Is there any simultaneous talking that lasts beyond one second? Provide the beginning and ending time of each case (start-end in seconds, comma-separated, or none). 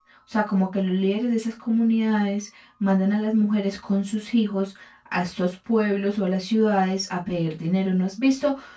none